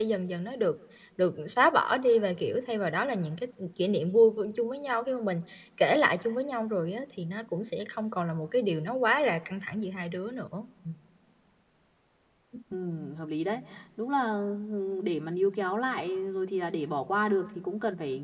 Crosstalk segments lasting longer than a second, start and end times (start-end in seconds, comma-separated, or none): none